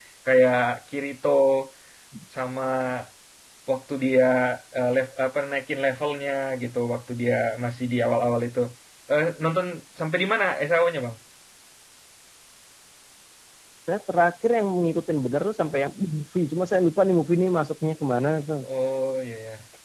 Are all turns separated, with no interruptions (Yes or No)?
Yes